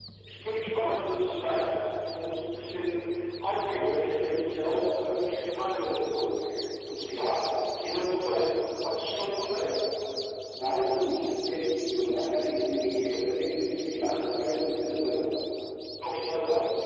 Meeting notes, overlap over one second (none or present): none